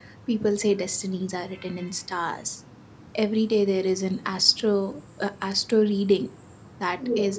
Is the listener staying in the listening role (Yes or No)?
Yes